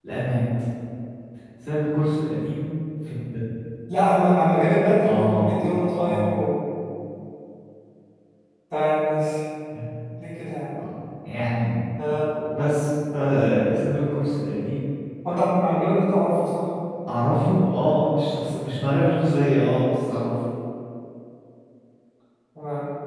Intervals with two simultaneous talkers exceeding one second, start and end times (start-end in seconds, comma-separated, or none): 5.1-6.4